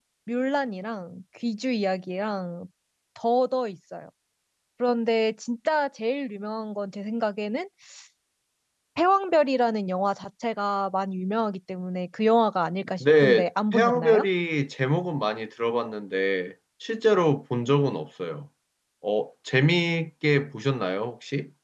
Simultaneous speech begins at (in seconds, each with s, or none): 13.0 s